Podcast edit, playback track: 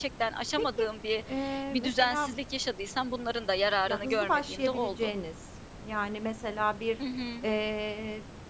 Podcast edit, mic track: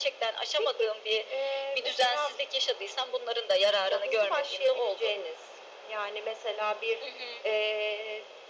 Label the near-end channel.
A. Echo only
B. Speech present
A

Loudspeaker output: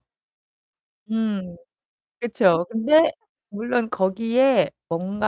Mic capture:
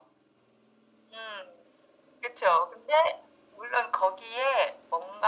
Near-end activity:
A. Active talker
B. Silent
B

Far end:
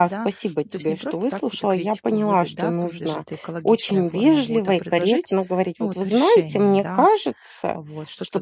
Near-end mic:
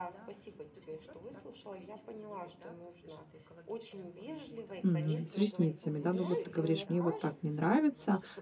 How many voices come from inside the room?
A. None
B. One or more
B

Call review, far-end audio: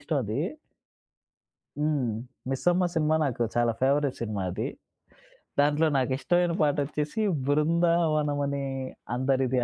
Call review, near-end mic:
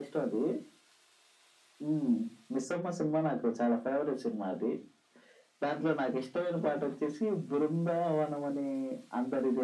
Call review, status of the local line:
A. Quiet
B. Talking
A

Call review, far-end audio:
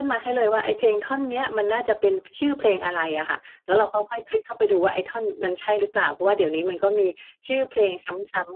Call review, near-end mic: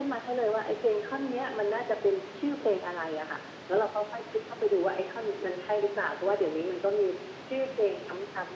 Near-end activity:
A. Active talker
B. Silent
B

